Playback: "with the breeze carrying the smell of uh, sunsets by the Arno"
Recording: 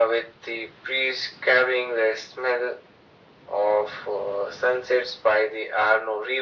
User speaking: No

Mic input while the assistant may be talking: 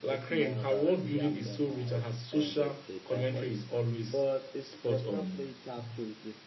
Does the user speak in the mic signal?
Yes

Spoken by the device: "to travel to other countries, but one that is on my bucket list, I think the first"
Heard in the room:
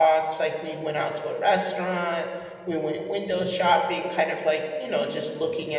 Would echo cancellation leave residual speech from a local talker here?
Yes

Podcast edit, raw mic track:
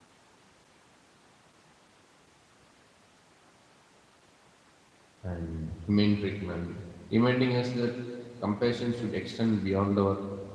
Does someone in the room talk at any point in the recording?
Yes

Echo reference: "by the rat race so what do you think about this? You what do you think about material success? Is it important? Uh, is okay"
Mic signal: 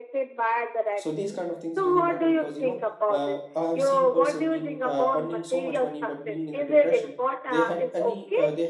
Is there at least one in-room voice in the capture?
Yes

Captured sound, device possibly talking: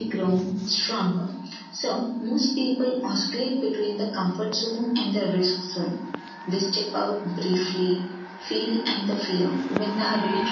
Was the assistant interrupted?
No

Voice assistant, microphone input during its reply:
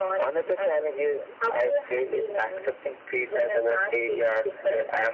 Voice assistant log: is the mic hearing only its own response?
Yes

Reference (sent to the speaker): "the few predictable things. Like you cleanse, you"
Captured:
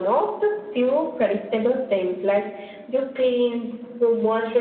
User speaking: No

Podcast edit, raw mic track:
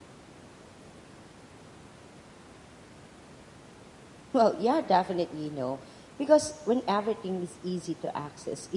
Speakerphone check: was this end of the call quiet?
No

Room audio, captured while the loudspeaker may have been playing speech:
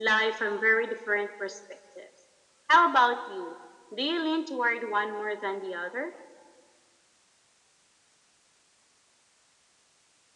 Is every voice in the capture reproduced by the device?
Yes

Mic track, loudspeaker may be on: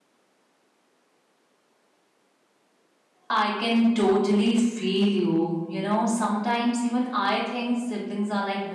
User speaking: Yes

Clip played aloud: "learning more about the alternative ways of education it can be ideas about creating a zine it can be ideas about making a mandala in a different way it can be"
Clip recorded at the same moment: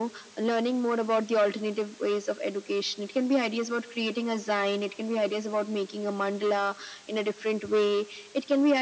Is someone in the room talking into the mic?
No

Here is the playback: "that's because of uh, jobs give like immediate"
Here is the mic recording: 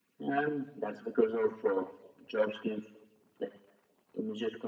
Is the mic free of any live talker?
Yes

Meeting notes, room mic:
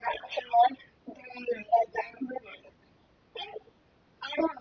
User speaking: No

